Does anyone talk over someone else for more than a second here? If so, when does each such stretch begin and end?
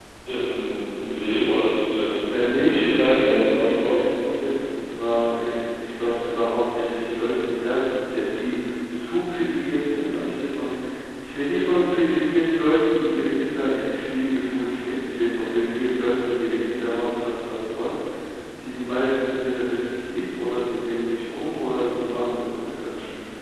2.3-4.3

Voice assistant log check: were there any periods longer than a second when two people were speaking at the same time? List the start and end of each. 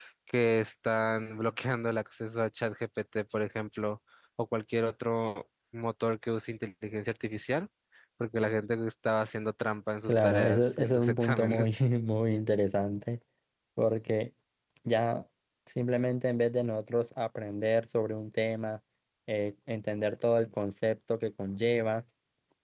10.1-11.7

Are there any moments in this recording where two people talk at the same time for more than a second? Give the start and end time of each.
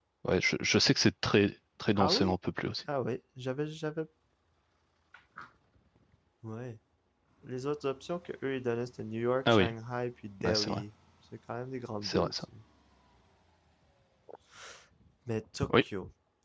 none

